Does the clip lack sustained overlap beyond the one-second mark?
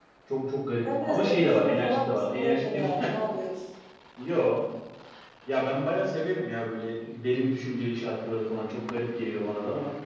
No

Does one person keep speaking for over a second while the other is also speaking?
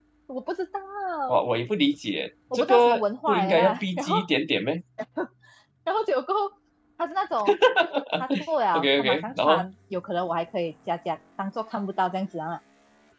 Yes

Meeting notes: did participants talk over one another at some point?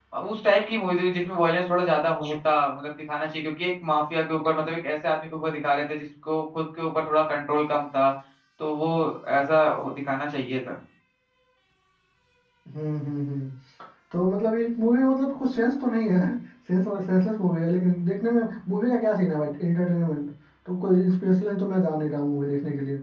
No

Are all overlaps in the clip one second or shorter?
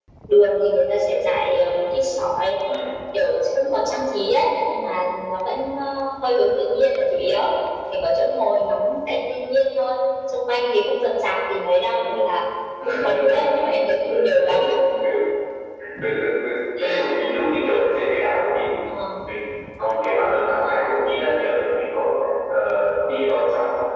Yes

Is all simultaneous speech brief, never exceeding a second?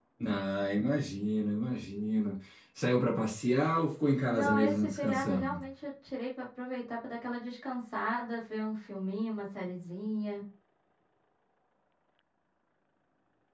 No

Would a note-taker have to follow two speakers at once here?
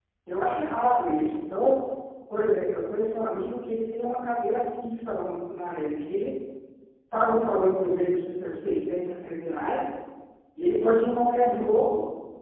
No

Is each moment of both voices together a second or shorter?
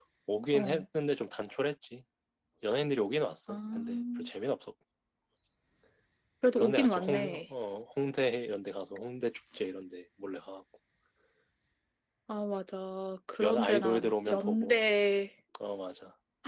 No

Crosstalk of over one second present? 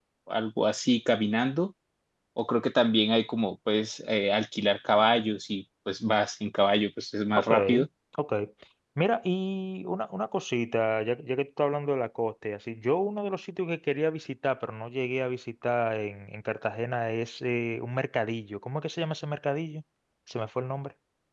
No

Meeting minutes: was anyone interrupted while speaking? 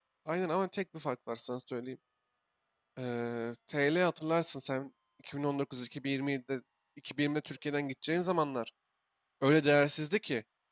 No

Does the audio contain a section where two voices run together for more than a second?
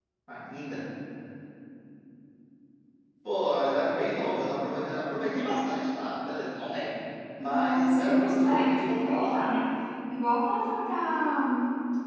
Yes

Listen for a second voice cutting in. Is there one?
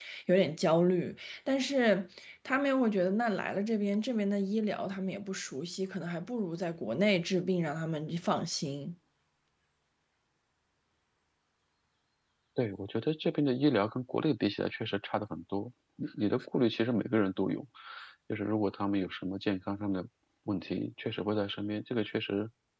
No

